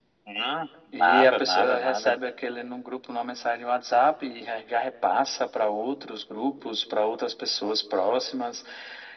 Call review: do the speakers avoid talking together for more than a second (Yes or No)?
No